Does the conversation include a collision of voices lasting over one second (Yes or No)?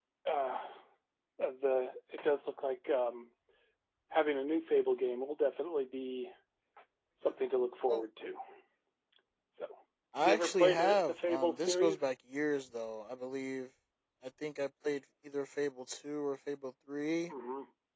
Yes